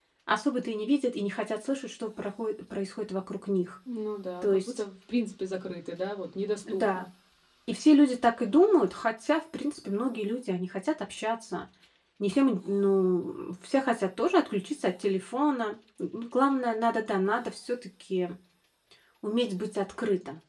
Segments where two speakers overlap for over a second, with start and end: none

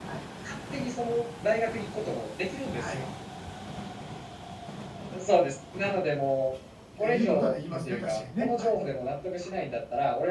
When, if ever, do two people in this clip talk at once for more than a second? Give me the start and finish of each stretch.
7.0-8.8

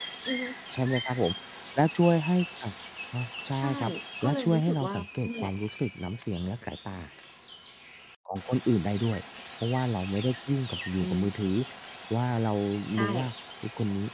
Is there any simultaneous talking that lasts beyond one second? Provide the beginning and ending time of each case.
4.2-5.5

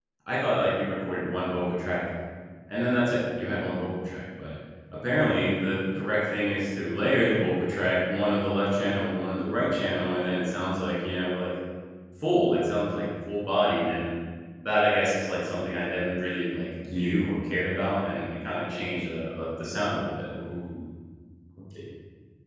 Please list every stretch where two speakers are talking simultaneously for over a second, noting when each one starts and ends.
none

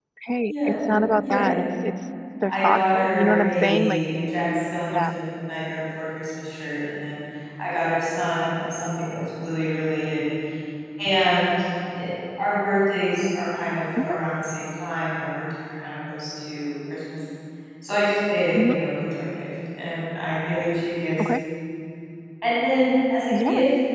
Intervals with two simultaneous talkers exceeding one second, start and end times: 2.5-4.0

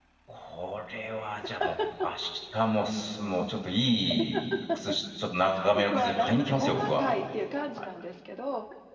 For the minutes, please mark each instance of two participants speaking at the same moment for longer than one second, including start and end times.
5.9-7.2

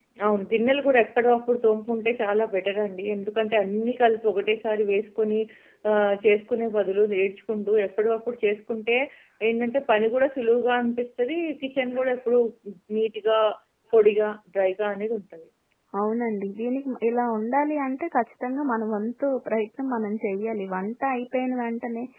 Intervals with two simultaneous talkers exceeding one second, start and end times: none

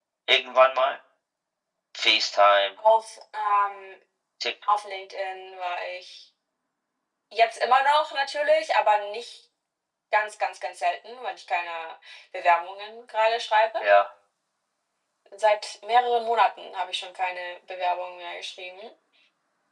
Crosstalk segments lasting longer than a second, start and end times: none

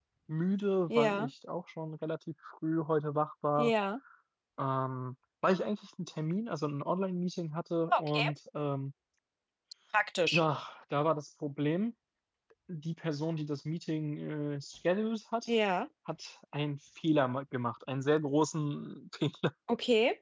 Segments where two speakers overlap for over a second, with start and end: none

